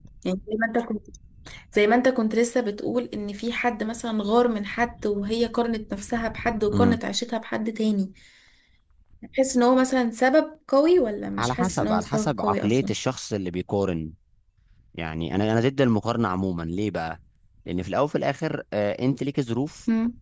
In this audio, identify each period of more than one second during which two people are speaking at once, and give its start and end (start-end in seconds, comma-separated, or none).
11.4-12.9